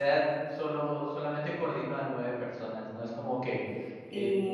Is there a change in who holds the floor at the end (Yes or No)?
No